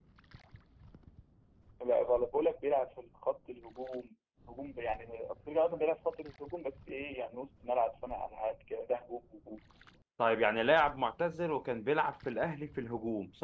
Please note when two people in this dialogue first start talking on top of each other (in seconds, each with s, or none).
none